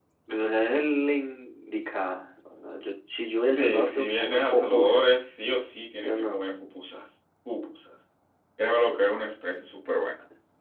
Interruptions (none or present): present